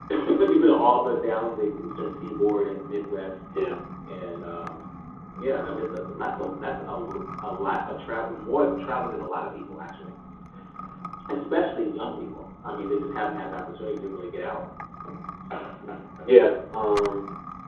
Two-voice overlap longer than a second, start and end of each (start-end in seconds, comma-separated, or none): none